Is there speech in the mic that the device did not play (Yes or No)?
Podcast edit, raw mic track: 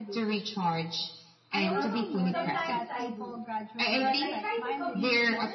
Yes